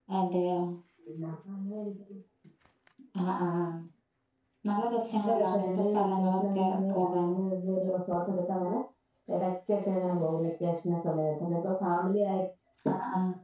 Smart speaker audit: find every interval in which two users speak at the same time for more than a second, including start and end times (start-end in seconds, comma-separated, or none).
5.1-7.3